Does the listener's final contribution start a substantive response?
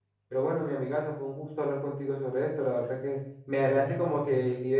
No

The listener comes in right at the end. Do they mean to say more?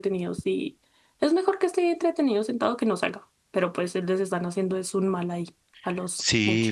Yes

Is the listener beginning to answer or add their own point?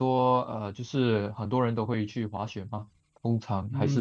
Yes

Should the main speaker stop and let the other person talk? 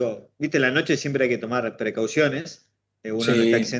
No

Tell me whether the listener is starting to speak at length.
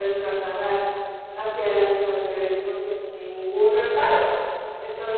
No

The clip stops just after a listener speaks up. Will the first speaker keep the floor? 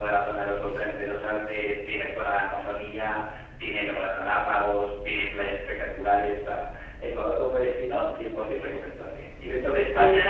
Yes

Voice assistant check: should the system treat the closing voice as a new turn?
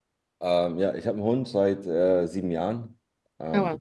No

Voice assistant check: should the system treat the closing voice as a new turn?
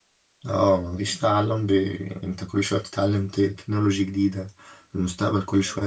No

